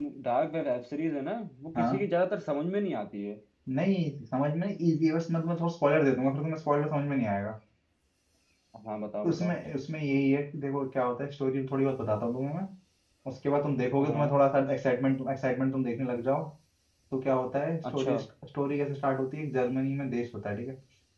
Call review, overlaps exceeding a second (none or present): none